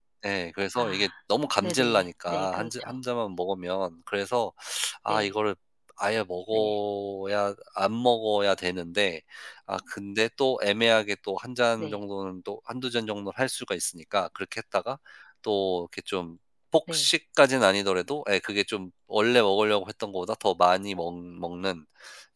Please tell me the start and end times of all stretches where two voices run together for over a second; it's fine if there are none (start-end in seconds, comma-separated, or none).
1.6-2.9